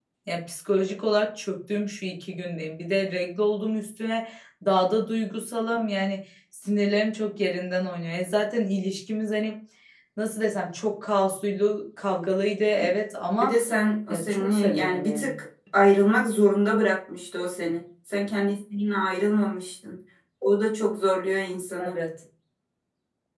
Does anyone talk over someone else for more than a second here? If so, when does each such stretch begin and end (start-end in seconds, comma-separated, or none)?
14.1-15.3